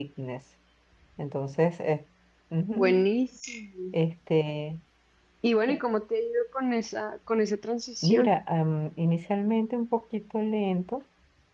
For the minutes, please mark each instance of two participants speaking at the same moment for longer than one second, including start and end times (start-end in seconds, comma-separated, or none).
none